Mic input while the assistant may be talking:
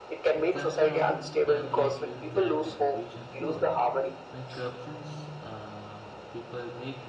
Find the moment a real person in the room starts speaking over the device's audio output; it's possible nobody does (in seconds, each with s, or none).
0.3 s